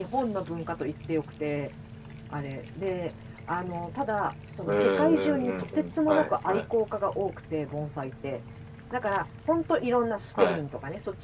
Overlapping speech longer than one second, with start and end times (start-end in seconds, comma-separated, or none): 4.7-6.6